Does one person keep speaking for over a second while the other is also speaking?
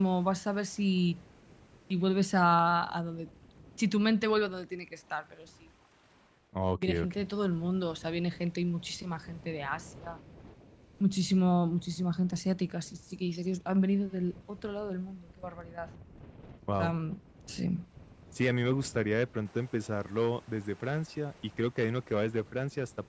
No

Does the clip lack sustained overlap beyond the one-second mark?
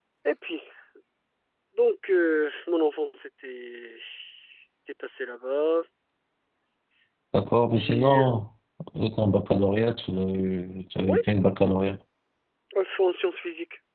Yes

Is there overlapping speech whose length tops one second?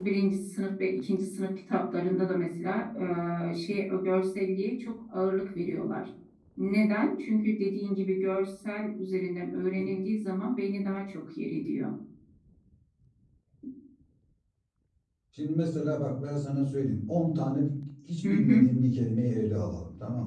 No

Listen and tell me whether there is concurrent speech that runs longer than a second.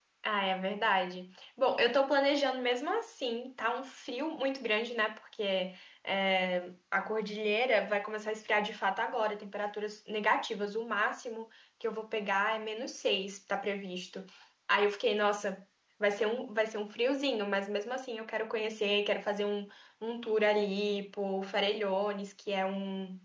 No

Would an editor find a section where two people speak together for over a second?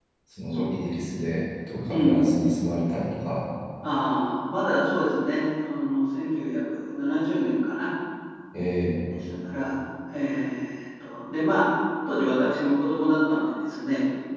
No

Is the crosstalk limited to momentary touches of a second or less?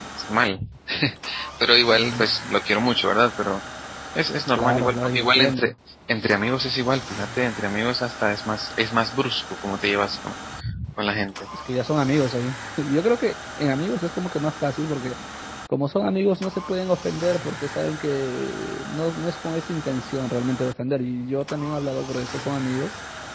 No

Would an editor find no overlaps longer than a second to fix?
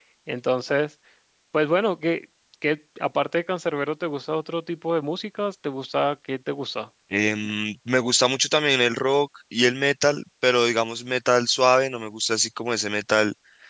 Yes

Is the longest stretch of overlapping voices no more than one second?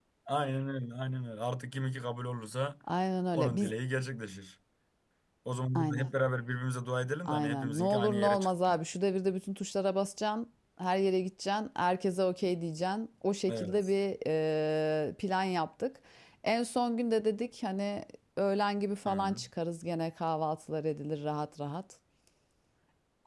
No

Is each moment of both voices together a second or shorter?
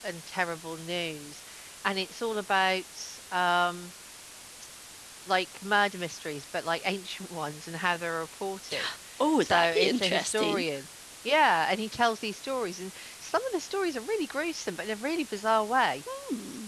No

